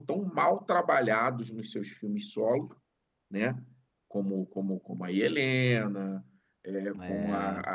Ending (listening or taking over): listening